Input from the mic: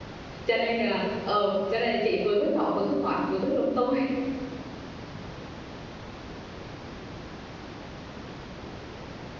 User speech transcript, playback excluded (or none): cho nên là ờ cho nên chị vừa hướng nội vừa hướng ngoại vừa hướng lung tung